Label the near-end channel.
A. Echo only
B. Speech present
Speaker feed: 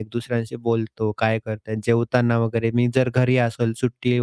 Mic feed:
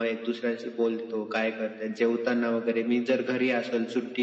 A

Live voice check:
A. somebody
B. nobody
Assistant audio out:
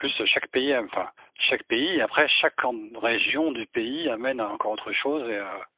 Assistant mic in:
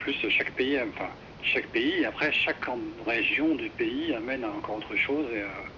B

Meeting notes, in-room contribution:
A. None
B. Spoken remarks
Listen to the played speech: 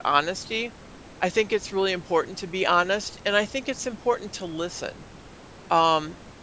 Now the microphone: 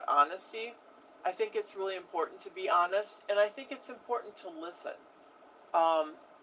A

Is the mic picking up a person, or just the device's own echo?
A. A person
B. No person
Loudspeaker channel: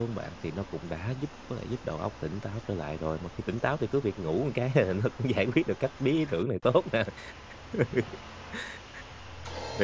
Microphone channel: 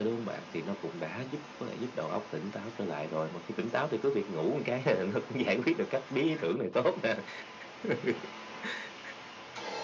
B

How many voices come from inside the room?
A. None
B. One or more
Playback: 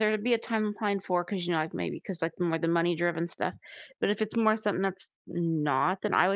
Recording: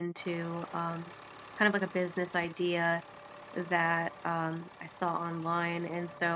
B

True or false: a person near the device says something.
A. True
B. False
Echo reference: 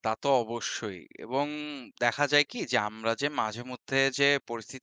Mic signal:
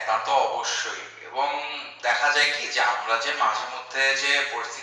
B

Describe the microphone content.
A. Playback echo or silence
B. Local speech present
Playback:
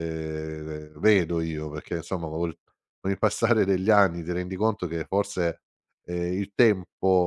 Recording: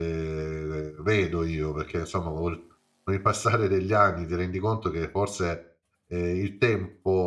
A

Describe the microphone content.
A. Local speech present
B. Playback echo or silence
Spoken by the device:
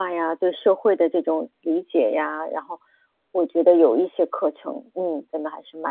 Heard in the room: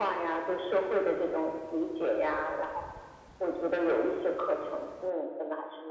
B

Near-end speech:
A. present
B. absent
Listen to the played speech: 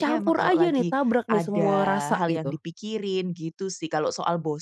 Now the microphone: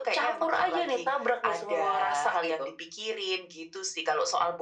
B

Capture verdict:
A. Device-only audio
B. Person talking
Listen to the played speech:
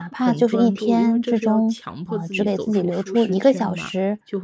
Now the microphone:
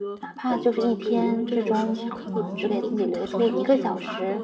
B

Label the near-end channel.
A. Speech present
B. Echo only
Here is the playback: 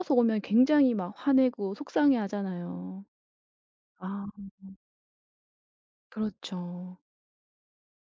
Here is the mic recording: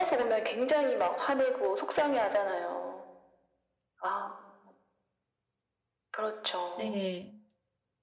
A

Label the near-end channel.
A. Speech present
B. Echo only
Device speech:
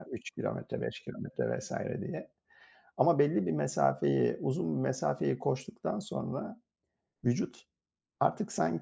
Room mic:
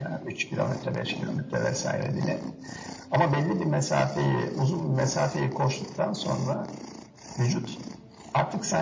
B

